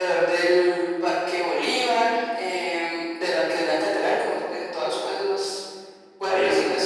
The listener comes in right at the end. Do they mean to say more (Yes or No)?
No